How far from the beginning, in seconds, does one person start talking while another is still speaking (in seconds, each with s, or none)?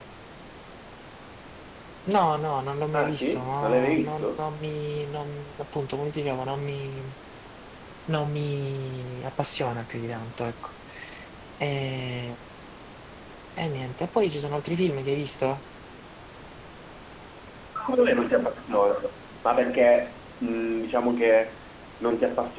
2.9 s